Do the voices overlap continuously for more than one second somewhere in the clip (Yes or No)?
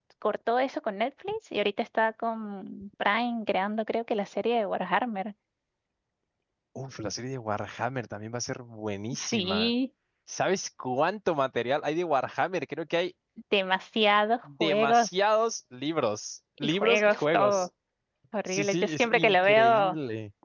Yes